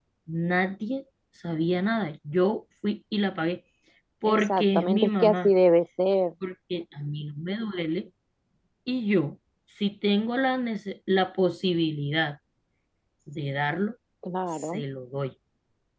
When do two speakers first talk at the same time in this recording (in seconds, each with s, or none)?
4.2 s